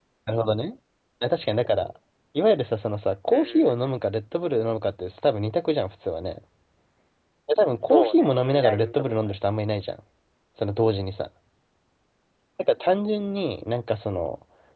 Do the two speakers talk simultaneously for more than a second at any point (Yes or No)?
Yes